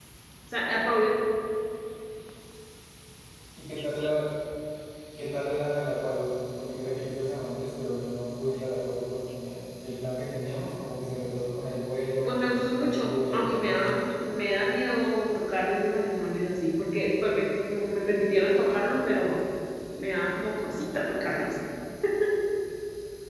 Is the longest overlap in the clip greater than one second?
Yes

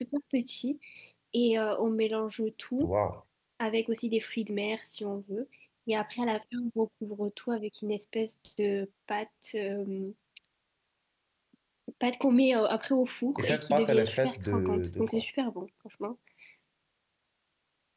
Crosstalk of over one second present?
Yes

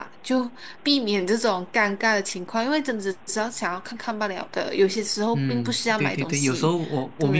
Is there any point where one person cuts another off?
Yes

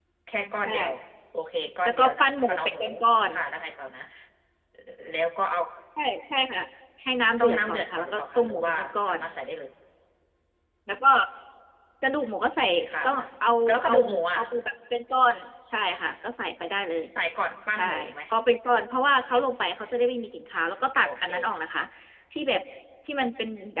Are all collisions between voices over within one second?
No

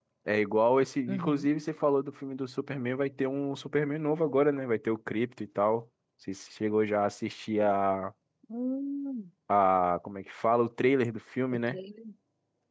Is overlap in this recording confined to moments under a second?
Yes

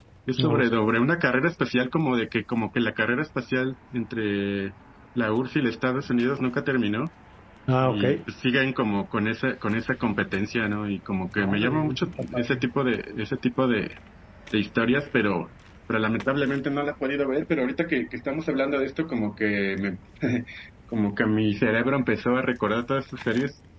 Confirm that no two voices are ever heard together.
No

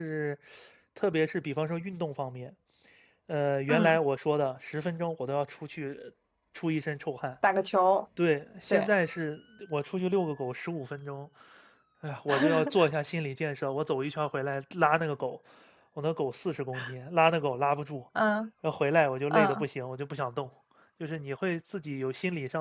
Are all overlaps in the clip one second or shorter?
Yes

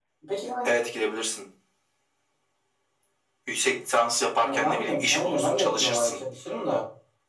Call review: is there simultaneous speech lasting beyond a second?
Yes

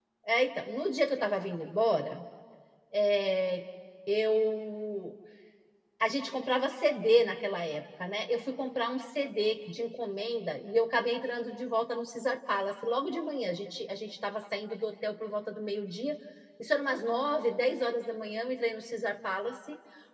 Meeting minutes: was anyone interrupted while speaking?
No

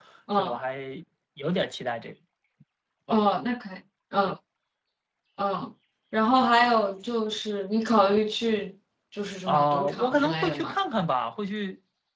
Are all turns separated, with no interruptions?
No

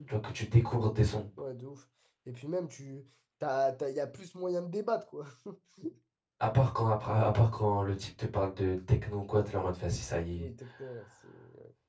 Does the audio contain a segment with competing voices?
No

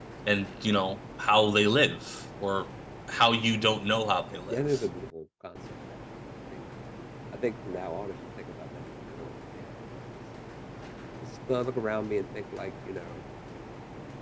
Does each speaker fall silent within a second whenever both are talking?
Yes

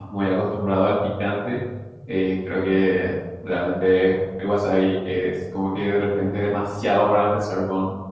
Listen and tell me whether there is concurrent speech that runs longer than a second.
No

